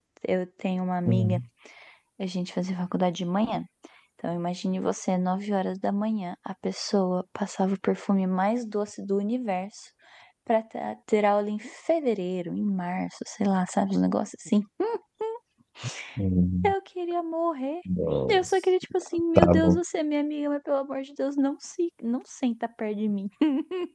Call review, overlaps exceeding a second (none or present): none